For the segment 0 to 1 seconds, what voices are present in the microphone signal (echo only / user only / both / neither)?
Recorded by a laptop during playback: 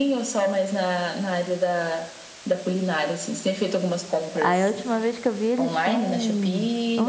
echo only